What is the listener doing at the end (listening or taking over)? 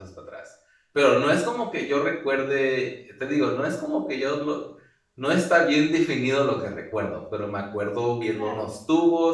listening